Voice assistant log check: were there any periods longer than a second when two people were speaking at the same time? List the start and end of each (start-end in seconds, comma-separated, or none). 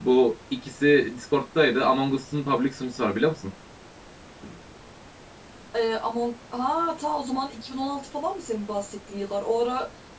none